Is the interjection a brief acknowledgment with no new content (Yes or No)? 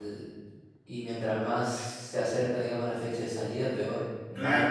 No